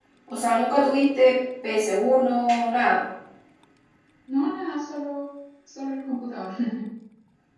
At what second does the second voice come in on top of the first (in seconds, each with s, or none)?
none